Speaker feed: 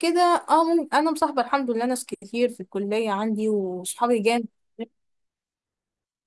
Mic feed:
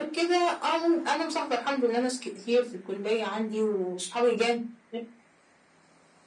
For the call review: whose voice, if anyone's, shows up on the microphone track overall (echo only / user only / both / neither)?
echo only